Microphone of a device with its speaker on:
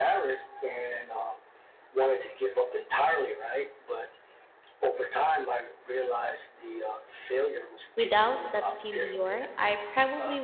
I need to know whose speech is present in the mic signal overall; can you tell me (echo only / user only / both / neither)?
both